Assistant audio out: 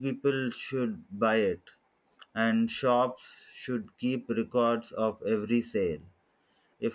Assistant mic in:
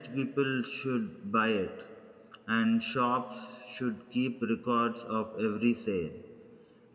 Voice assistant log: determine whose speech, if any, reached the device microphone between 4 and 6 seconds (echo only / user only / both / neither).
echo only